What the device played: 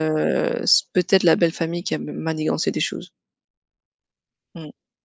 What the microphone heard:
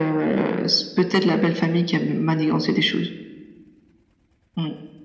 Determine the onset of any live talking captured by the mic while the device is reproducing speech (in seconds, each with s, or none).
none